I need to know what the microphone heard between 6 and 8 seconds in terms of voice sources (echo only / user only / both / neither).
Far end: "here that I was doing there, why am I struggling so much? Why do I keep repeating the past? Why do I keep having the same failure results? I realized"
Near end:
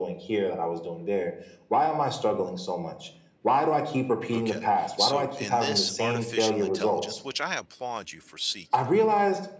both